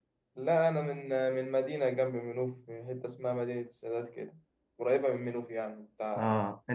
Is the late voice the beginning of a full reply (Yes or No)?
Yes